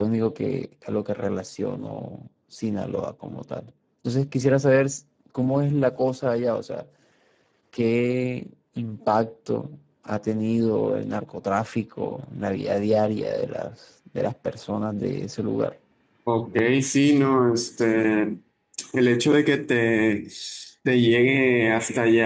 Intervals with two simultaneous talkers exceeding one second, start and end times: none

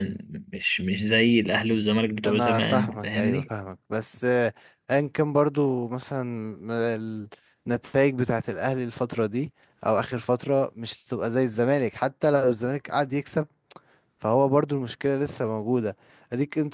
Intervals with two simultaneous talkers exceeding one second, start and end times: 2.2-3.5

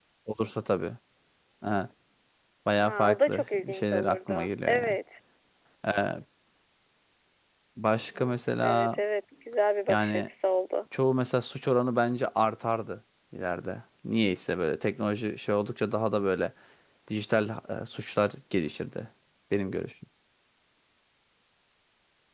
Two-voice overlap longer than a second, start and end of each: 2.8-5.0

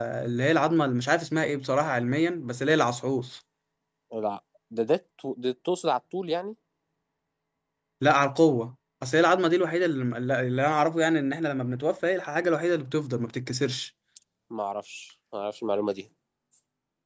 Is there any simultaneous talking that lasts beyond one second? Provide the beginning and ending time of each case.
none

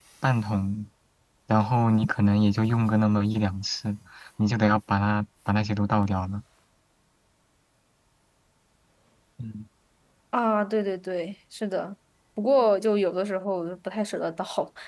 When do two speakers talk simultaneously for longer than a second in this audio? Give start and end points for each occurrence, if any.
none

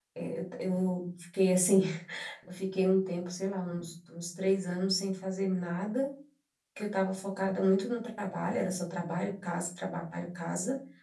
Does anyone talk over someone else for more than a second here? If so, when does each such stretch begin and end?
none

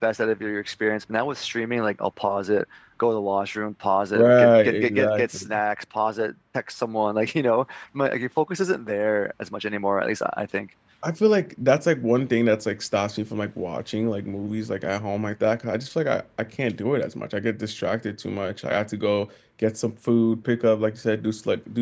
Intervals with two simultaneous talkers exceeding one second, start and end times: 4.2-5.5

